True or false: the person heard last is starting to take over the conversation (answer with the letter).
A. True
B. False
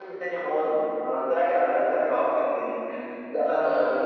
B